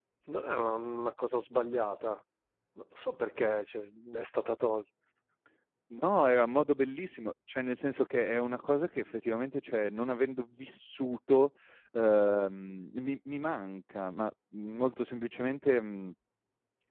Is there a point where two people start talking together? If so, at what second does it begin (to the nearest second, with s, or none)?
none